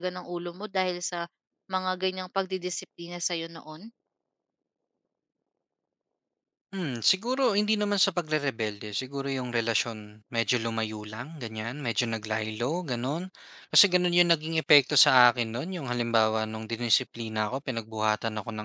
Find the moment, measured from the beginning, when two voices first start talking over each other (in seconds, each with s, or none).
none